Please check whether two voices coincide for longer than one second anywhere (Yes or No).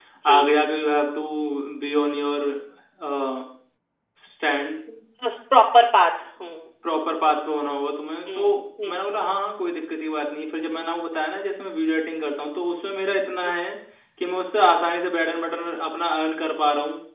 No